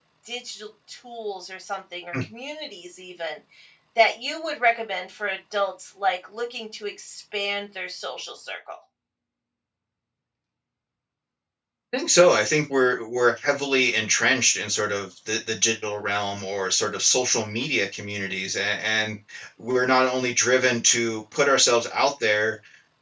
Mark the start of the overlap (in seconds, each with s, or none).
none